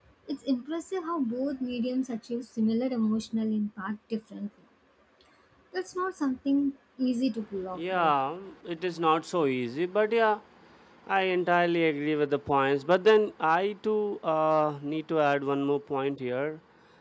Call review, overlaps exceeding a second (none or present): none